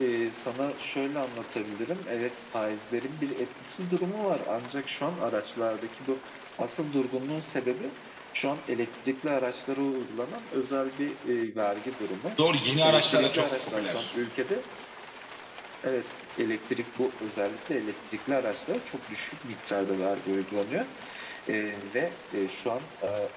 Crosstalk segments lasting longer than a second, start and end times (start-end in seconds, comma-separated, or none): 12.8-14.1